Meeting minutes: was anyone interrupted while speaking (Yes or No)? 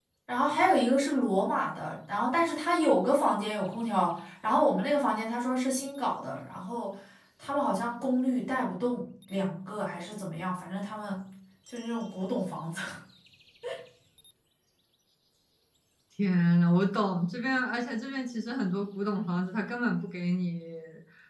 No